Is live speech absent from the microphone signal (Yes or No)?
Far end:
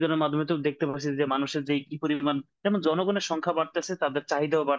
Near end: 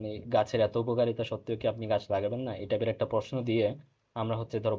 No